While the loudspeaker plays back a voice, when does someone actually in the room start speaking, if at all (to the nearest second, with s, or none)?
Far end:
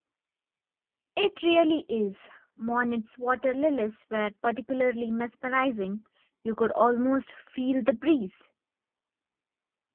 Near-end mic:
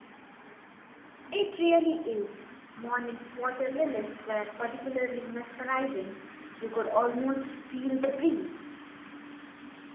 none